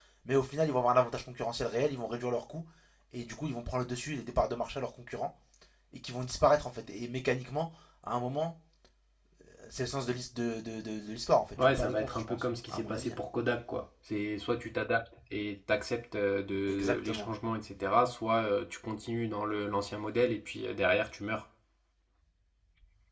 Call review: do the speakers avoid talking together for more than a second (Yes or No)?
No